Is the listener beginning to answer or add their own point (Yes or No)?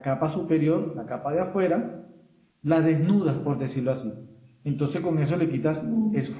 No